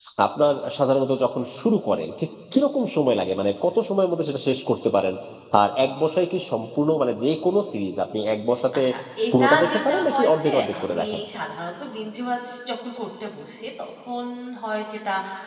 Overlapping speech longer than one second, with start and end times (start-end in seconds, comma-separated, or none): 9.4-11.0